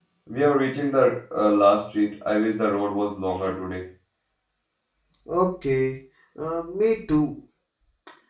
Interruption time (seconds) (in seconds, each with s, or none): none